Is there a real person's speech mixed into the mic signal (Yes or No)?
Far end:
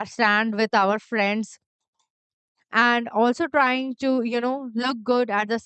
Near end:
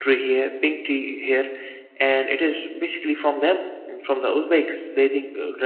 Yes